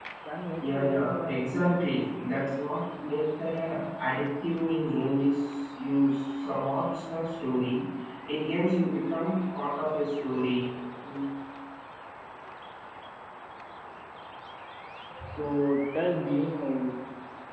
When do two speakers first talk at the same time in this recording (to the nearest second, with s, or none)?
1 s